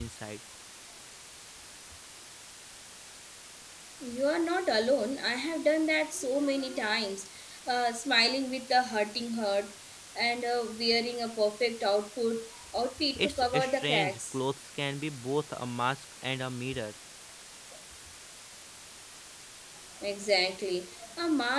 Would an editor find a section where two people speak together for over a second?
Yes, from 13.2 s

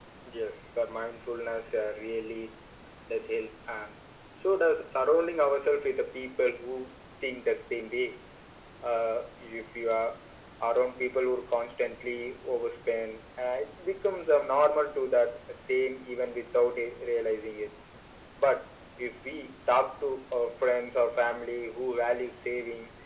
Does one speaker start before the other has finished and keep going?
No

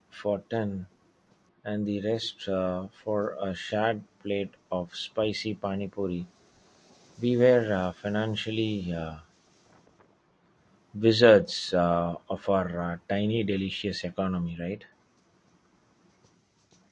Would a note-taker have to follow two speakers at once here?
No

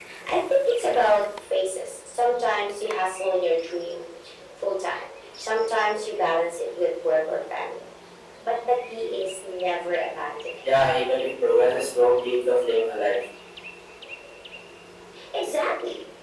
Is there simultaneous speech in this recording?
No

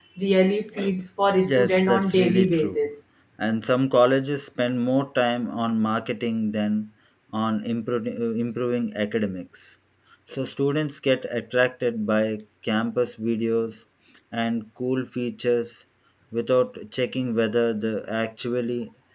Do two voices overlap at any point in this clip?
Yes, from 1.4 s

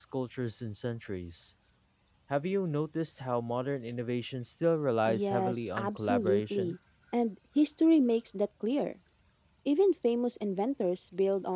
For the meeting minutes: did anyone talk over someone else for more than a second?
Yes, from 5.1 s

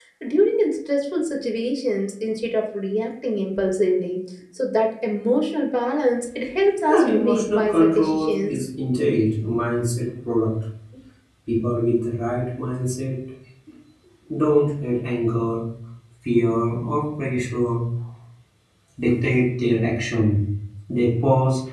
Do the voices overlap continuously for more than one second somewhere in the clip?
Yes, from 6.8 s

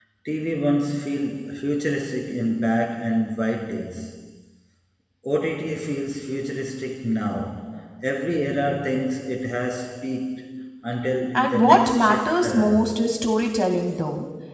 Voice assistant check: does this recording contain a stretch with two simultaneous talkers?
Yes, from 11.3 s

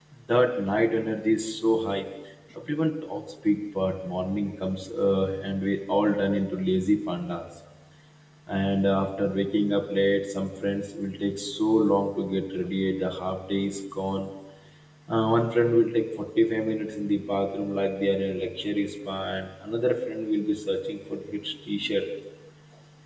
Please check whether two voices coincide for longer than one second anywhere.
No

